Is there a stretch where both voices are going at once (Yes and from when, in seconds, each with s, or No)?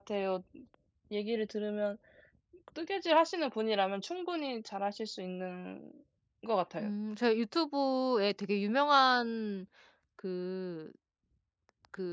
No